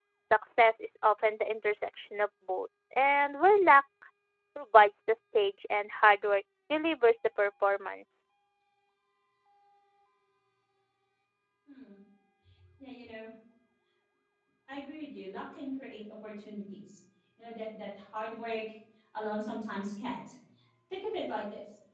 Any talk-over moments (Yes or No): No